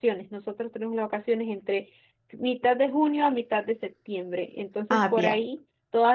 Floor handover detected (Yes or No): No